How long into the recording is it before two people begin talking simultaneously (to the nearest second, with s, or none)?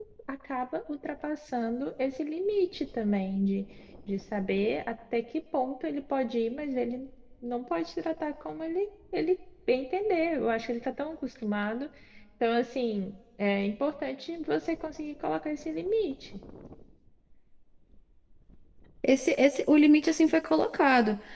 none